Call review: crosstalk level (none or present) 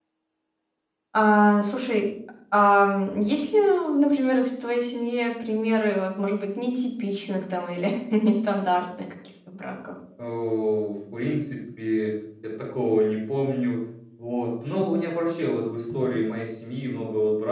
none